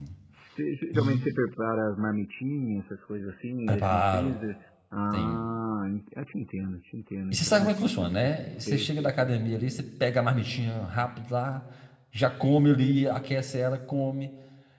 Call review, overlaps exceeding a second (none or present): present